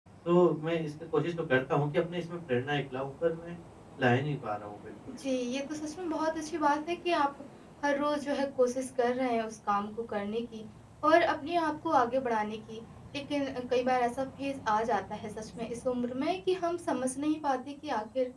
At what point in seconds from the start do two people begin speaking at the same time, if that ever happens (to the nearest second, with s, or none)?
none